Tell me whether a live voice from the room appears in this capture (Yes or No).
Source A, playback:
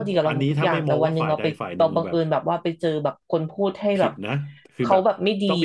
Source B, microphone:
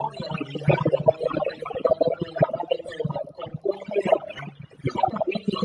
No